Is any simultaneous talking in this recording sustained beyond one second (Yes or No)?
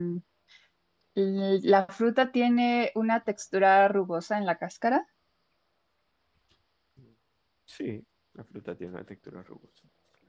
No